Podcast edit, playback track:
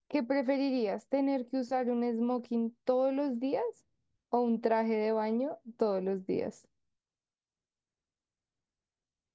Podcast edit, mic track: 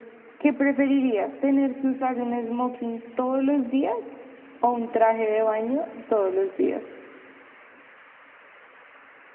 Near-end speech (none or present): none